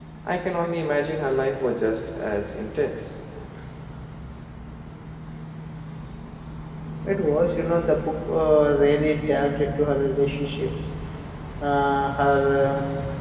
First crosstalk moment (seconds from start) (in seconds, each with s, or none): none